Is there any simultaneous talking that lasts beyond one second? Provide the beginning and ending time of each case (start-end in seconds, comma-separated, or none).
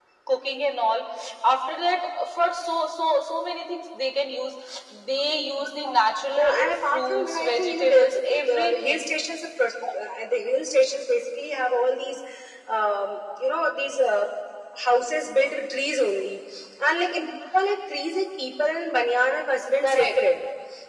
6.4-9.0